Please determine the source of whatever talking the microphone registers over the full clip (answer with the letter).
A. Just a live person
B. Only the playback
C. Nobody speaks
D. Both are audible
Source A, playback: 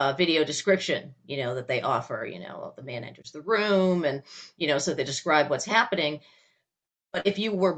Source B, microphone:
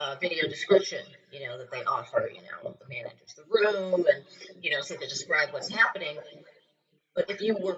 B